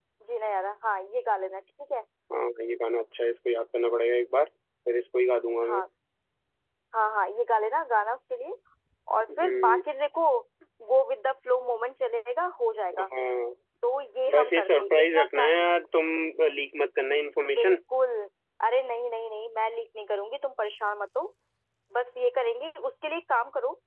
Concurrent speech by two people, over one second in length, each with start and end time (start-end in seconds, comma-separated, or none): 14.3-15.6